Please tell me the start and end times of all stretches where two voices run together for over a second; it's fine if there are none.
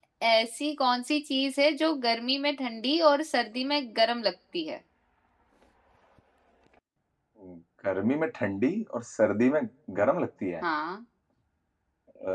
none

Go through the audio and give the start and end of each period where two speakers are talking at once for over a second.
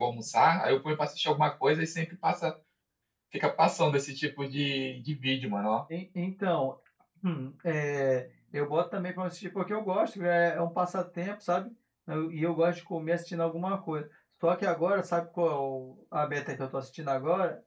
none

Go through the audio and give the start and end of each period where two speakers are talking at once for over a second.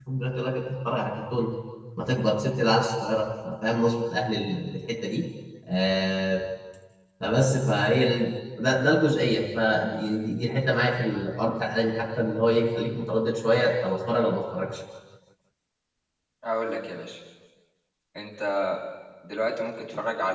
none

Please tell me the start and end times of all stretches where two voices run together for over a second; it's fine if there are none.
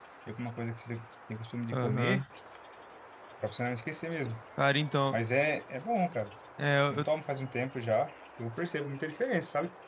none

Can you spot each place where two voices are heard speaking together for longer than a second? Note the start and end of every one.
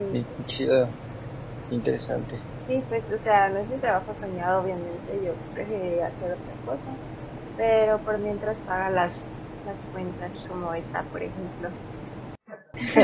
none

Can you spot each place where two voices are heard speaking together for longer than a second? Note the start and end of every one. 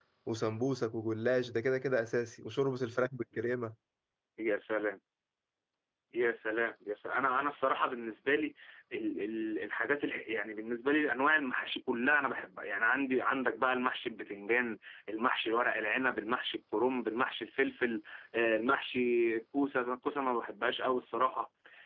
none

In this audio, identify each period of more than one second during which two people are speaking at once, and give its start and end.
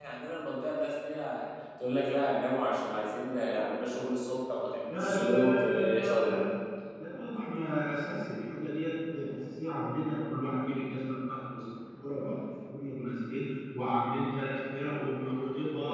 4.9-6.3

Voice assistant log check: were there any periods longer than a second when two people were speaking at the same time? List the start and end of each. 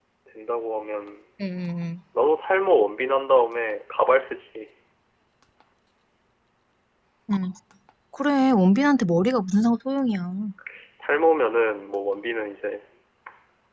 none

